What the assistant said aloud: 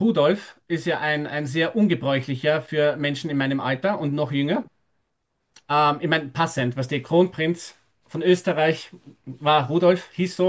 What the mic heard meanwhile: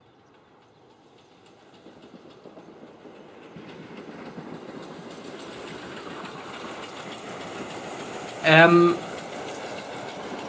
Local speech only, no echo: ähm,

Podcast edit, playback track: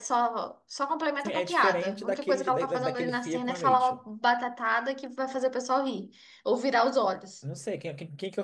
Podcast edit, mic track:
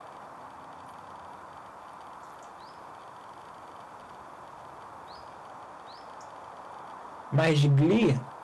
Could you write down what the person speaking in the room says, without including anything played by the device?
mas de Glee

